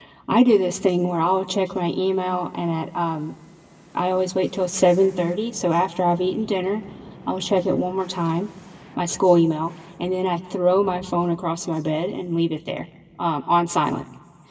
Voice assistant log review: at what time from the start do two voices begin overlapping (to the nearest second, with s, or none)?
none